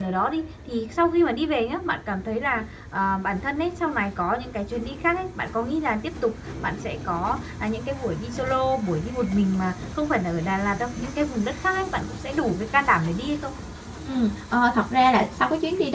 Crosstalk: none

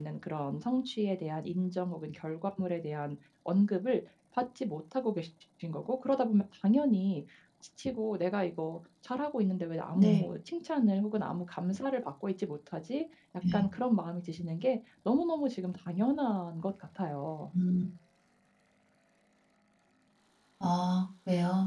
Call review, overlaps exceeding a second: none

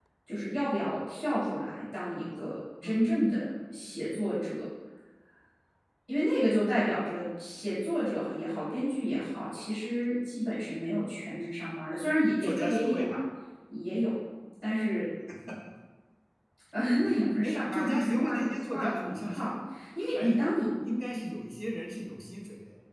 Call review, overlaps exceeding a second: present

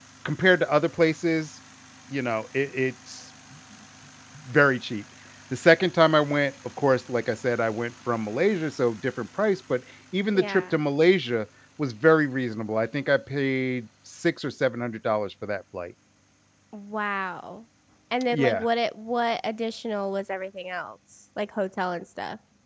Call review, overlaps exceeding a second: none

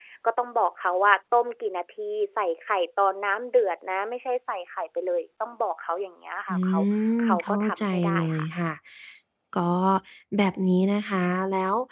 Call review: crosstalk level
present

